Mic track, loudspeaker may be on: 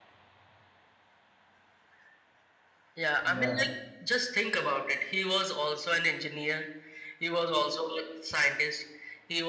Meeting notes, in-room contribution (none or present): present